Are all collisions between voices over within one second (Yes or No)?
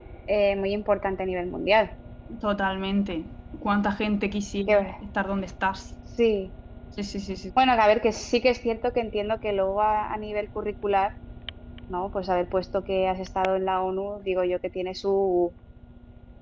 Yes